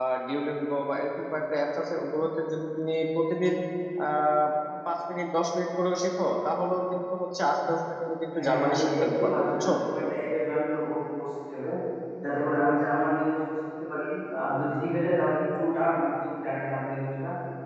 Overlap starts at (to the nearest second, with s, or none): 8 s